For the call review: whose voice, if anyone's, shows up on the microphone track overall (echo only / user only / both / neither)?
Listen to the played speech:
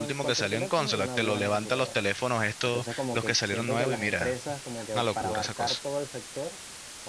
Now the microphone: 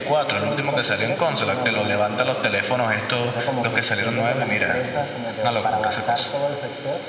echo only